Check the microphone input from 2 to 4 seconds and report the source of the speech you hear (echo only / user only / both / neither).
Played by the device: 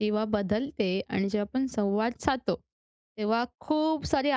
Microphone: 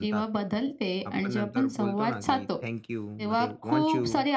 both